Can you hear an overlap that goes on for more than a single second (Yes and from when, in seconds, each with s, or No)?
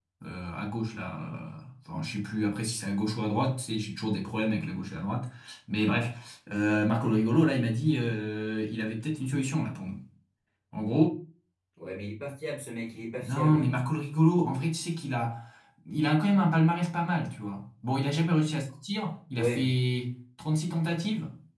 No